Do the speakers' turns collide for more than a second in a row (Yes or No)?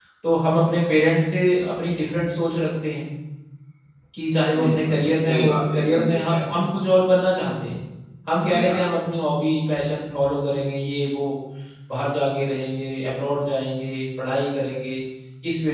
Yes